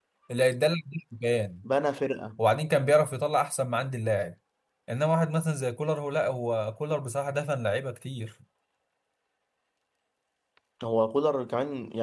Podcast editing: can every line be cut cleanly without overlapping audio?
Yes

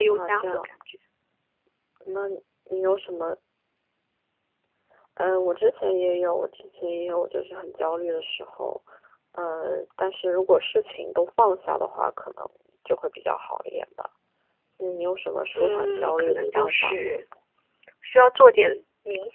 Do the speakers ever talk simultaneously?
Yes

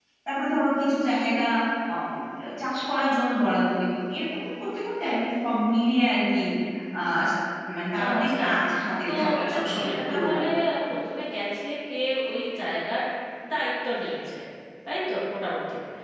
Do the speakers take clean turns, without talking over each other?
No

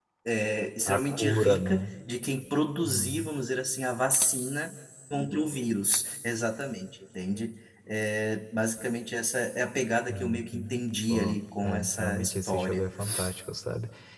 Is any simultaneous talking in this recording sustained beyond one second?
Yes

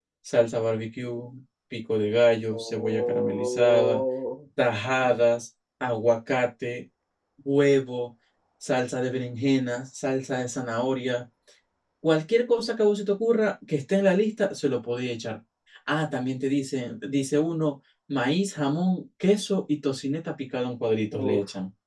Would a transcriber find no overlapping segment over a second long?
No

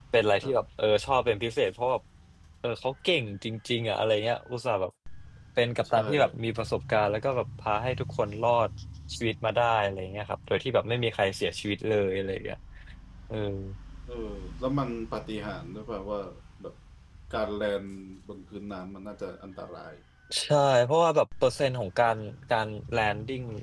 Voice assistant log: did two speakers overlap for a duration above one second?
No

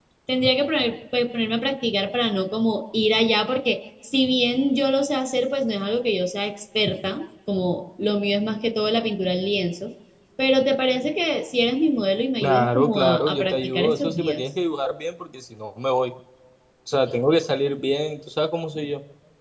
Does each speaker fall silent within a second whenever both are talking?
No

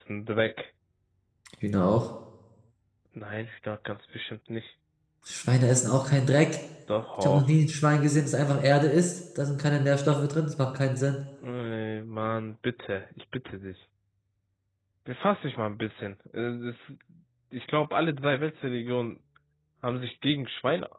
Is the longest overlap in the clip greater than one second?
No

